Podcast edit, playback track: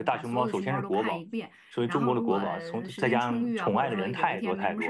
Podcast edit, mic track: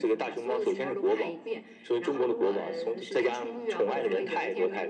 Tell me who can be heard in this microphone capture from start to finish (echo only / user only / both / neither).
echo only